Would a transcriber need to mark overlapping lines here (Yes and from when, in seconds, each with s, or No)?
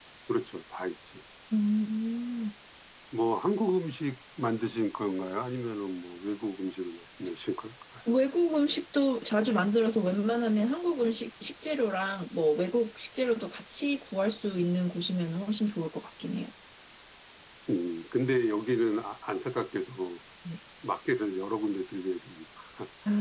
No